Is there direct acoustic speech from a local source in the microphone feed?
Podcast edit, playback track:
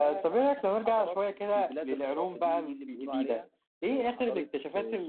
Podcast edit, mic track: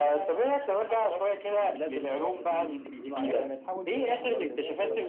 Yes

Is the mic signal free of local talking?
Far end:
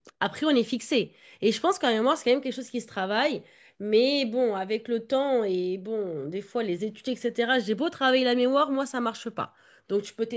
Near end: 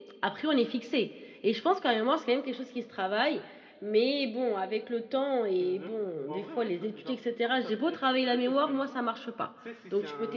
No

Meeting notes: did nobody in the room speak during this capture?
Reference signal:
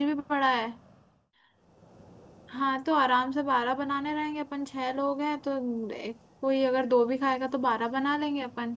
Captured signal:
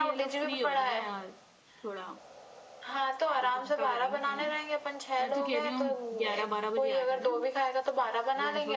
No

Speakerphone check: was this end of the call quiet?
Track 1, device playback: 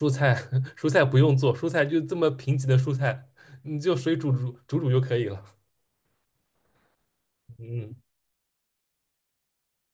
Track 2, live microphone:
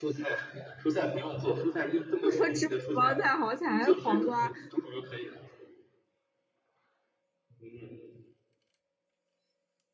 No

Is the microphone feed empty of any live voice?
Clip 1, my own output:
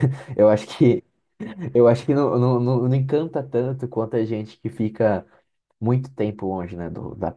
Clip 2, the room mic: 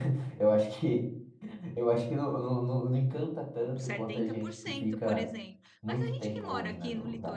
No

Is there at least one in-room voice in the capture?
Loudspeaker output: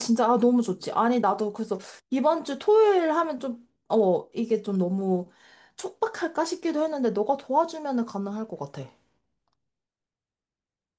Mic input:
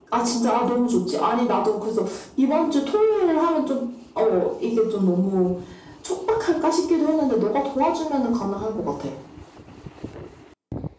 No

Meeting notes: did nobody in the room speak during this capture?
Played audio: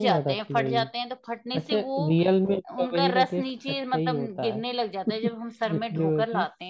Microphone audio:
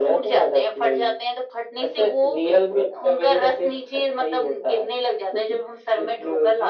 Yes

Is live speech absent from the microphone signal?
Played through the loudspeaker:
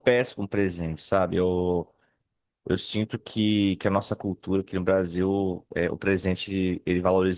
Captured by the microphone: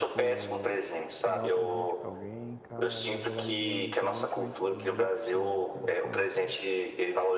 No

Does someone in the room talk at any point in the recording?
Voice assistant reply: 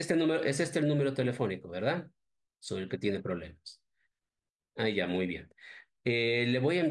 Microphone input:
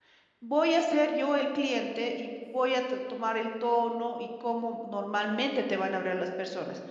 Yes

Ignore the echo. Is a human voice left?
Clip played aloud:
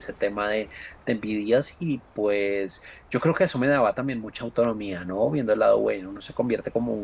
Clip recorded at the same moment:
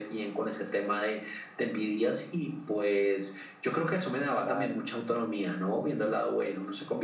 Yes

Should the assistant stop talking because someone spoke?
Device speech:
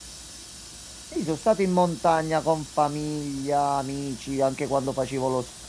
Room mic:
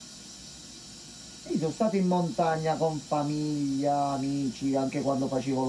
No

